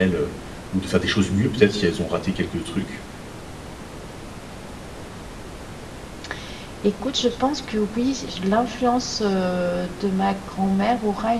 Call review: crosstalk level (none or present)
none